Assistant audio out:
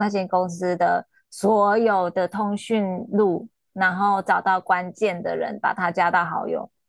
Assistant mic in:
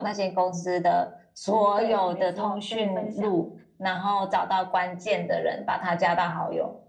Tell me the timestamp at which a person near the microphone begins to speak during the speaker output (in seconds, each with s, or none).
1.7 s